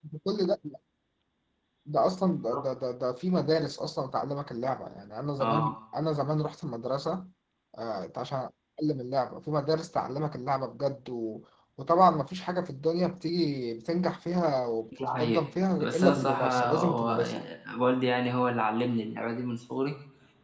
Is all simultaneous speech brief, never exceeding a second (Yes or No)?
No